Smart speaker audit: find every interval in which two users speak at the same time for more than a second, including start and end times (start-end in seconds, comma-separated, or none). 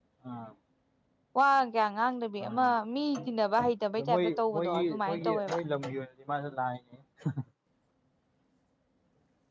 4.1-5.6